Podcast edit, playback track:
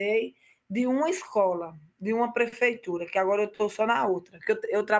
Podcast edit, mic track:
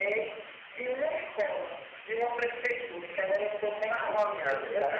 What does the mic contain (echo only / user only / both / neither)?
both